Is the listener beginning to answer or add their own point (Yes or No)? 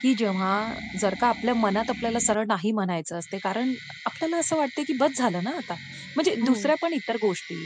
No